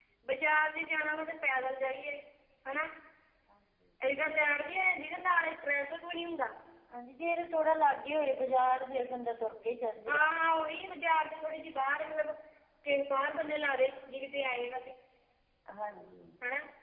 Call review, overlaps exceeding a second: none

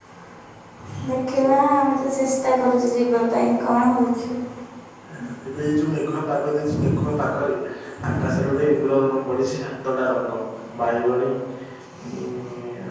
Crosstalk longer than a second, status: none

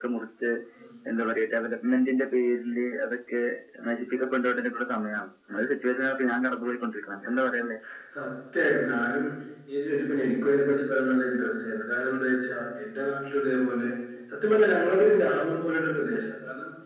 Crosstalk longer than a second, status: none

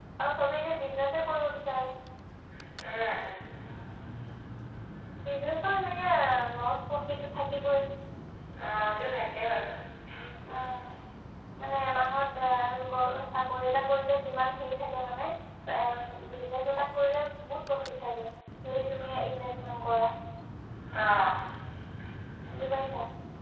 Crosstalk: none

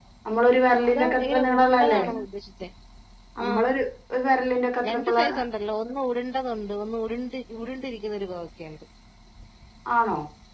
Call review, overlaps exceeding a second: present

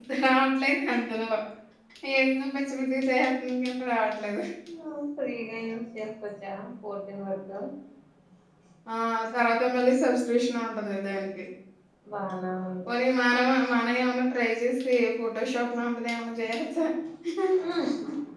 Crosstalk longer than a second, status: none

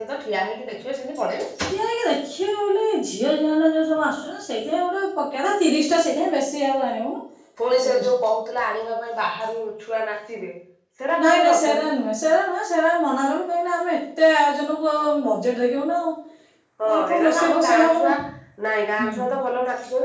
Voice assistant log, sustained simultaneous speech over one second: present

